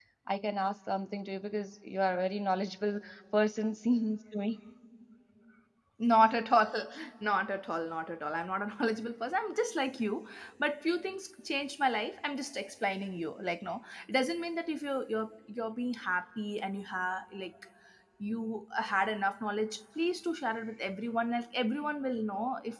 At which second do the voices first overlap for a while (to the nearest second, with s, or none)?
none